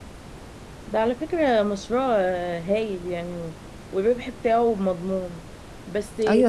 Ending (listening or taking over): taking over